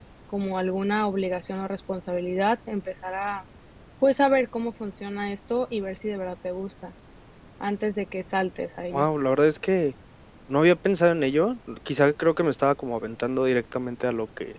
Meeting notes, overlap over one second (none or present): none